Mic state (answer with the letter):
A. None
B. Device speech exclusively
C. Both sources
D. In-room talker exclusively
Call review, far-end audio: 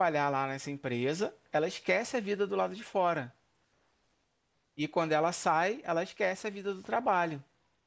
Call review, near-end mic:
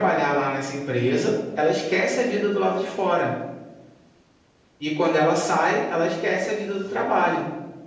B